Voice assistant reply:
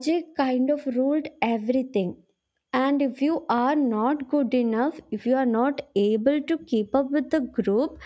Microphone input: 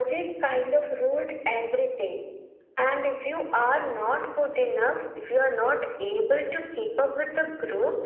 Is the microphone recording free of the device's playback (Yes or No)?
No